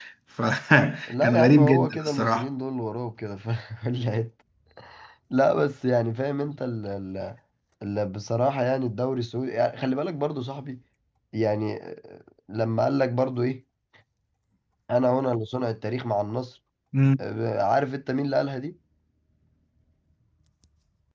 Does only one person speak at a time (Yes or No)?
No